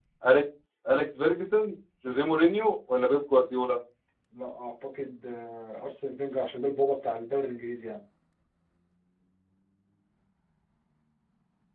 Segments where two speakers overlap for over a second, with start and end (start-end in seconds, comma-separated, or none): none